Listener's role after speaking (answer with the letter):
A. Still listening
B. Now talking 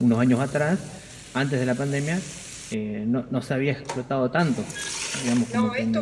B